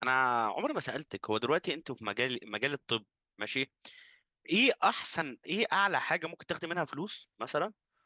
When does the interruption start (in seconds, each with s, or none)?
none